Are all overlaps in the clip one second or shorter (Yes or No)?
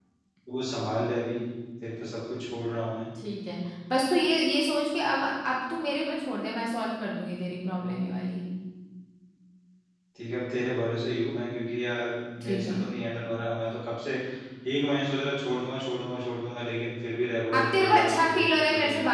No